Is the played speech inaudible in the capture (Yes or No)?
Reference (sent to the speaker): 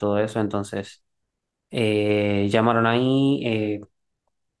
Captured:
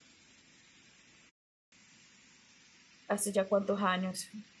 Yes